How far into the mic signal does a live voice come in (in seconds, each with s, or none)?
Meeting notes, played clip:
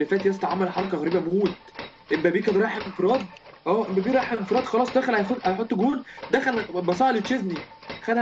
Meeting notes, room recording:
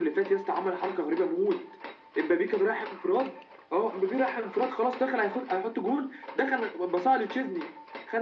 none